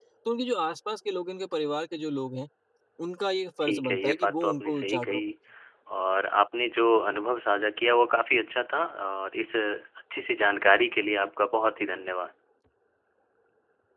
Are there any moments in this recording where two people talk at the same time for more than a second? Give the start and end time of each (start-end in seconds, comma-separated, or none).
3.6-5.2